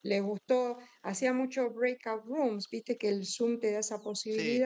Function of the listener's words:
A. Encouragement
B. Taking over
A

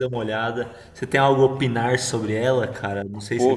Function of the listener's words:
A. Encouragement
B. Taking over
B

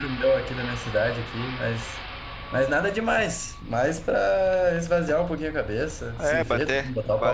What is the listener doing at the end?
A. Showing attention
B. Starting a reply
B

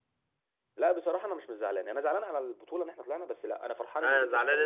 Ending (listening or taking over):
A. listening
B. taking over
B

